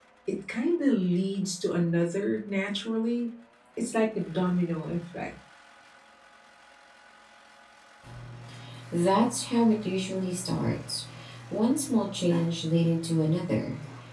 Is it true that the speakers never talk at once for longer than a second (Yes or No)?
Yes